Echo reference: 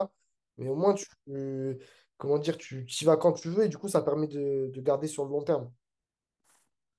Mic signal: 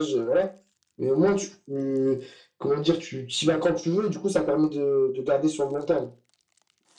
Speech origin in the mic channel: echo only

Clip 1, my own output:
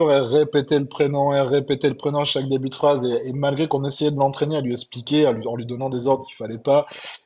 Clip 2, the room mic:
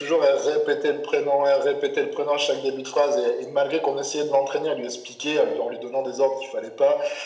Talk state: echo only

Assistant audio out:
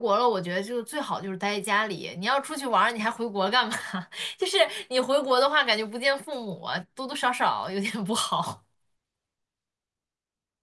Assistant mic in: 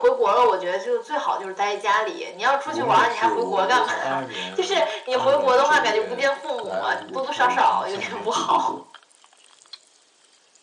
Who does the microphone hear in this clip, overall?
both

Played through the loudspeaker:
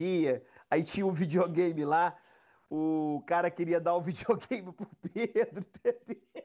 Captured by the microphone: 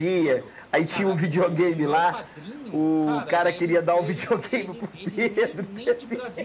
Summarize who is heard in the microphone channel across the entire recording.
both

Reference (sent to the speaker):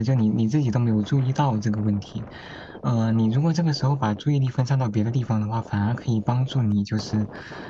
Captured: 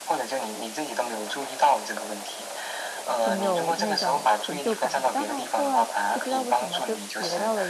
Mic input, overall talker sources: both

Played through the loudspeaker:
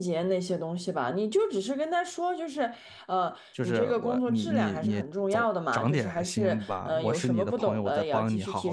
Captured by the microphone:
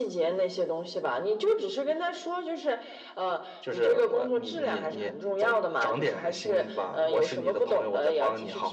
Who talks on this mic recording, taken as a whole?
echo only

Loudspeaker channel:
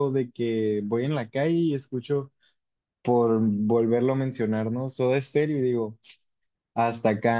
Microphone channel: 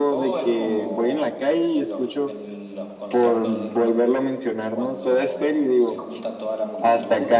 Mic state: both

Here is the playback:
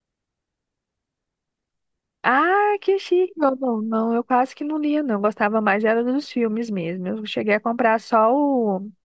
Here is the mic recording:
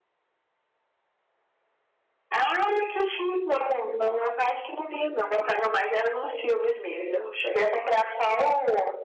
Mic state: echo only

